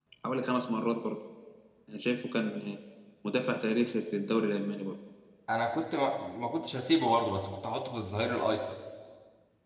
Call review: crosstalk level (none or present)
none